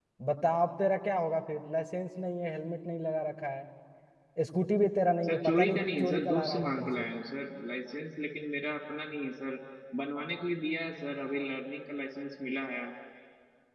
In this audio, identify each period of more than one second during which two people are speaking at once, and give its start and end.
5.2-7.0

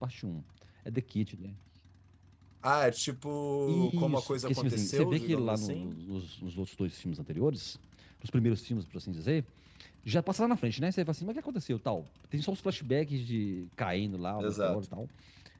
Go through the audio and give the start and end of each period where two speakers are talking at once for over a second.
3.7-6.0

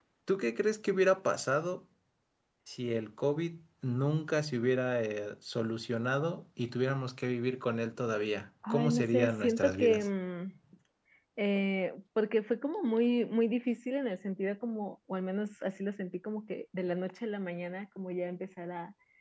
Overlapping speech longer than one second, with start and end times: 8.7-10.1

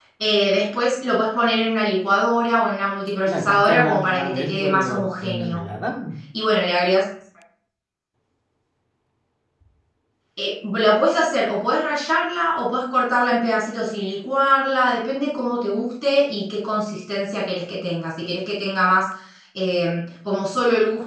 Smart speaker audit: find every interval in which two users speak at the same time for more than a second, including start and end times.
3.3-5.6

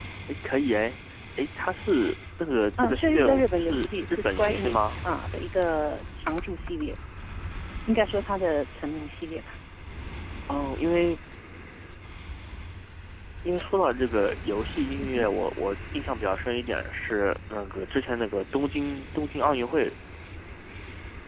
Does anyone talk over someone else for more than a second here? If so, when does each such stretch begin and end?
2.8-4.9

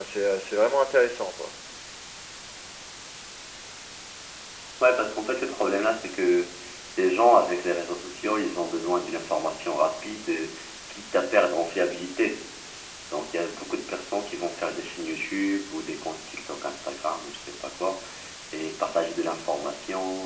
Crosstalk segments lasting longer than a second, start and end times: none

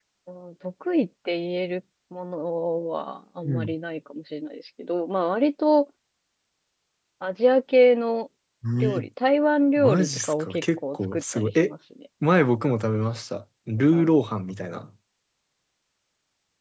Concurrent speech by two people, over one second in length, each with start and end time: 9.8-11.7

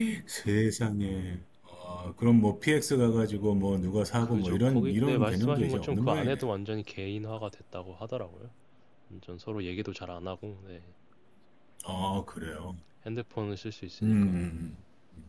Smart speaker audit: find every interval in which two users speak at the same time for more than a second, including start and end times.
4.2-6.4

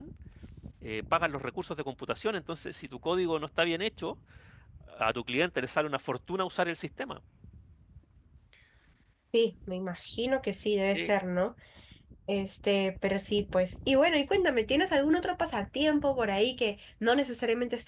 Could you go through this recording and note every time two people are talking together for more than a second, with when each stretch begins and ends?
none

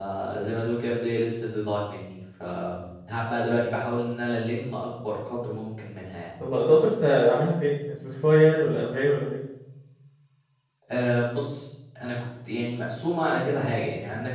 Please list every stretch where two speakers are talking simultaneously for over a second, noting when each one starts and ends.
none

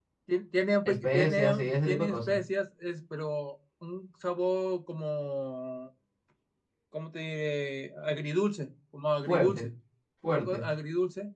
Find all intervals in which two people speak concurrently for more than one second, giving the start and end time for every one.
0.8-2.4

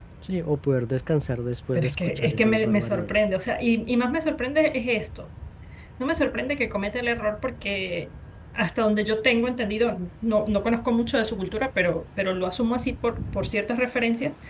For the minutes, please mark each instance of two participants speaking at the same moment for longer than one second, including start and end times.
1.7-3.1

